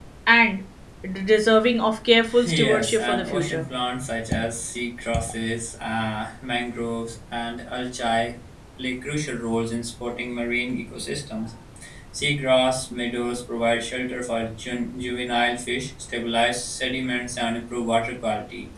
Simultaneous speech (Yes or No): Yes